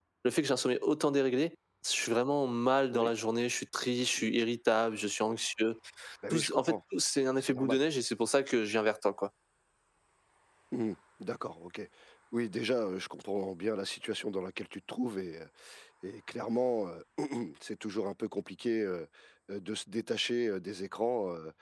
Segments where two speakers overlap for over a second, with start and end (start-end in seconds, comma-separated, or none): none